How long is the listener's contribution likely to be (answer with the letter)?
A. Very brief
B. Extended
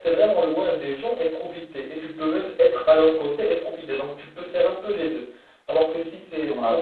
A